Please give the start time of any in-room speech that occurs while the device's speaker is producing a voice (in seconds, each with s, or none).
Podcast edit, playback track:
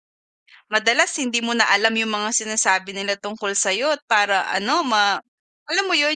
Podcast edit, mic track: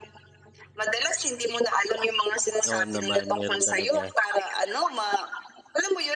2.7 s